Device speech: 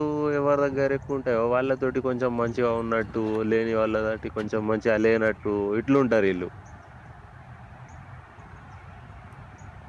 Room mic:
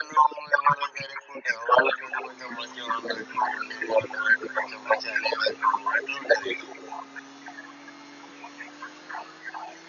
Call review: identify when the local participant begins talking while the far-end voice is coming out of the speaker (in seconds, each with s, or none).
none